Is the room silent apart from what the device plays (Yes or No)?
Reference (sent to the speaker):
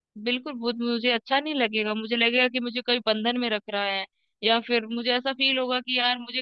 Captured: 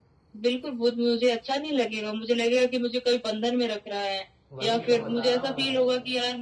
No